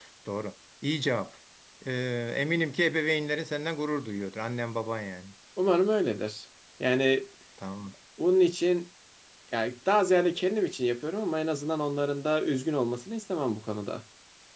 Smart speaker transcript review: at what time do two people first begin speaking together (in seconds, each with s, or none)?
none